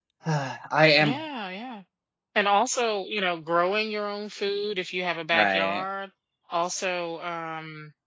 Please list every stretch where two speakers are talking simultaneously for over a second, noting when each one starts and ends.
none

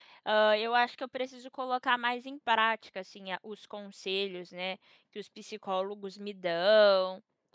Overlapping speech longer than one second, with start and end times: none

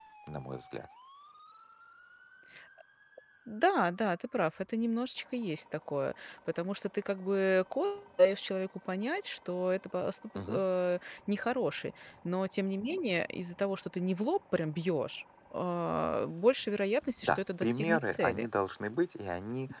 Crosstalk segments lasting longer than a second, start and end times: 17.2-18.5

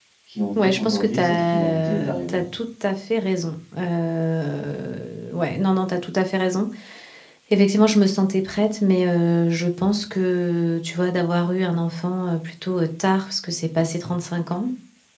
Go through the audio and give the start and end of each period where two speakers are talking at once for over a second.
0.6-2.4

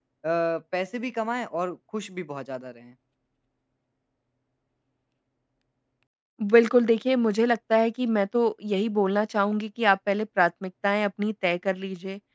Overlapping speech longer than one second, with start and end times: none

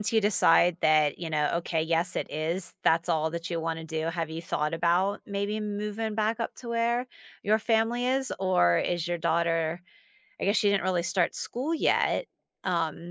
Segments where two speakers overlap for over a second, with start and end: none

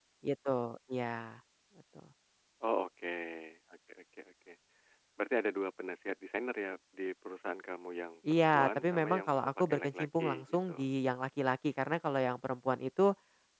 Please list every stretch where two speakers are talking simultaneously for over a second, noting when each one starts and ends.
8.3-10.9

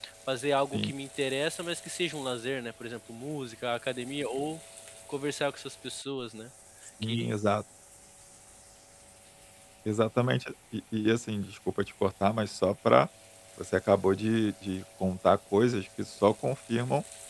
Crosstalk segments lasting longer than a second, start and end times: none

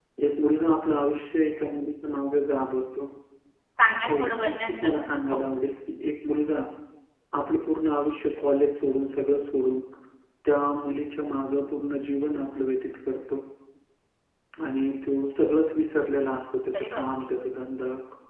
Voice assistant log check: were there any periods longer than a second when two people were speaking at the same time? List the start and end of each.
4.1-5.5

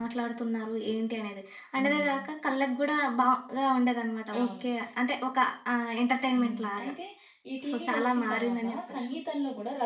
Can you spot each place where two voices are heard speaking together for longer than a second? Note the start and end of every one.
7.7-9.1

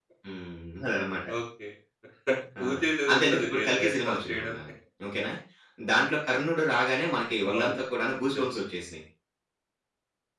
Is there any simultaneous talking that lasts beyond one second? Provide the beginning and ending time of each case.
3.1-4.5

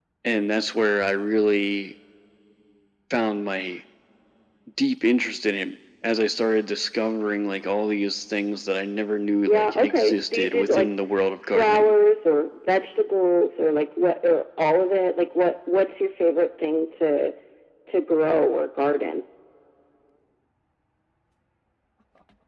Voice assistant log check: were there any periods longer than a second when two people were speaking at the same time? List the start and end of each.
9.5-10.9

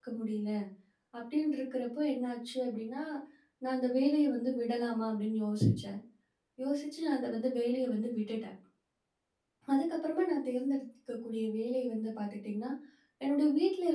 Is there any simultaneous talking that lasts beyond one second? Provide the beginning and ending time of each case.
none

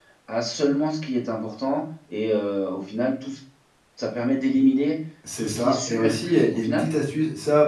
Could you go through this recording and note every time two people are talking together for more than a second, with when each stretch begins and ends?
5.4-6.8

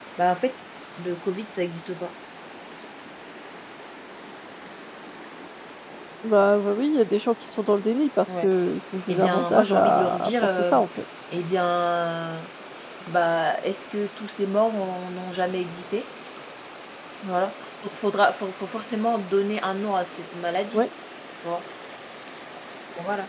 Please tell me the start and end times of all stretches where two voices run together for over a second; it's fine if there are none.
9.1-10.9

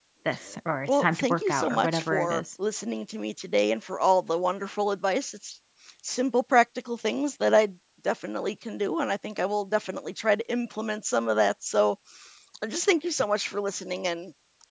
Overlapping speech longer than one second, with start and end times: 0.9-2.4

